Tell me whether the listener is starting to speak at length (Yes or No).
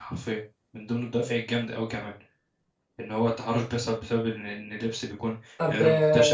No